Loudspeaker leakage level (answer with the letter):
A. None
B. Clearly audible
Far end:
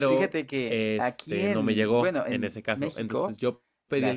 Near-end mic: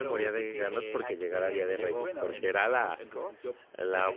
B